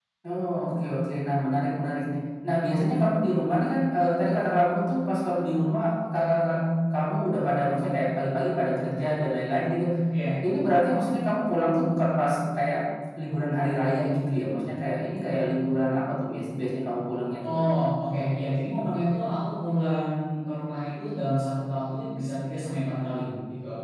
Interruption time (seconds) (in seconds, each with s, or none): none